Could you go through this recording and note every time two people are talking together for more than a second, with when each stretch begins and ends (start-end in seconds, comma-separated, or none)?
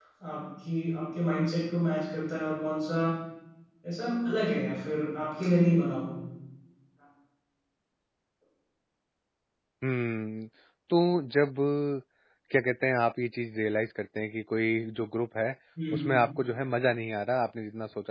none